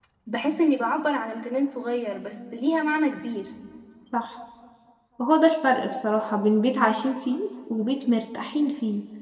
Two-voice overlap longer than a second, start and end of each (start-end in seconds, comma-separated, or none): none